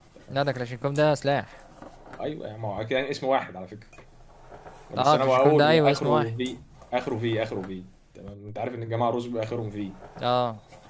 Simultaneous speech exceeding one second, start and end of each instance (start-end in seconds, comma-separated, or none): 5.0-6.3